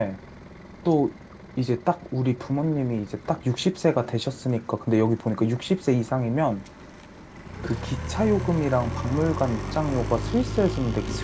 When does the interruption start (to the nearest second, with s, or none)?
none